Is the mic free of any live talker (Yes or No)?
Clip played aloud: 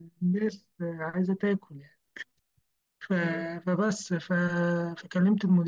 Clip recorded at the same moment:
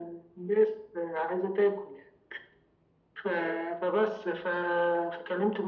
Yes